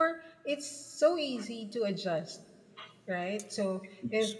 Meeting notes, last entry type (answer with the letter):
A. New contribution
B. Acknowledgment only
B